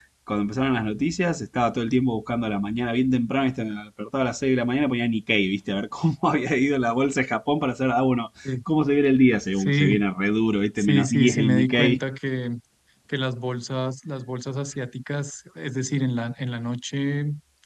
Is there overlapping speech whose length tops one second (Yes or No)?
Yes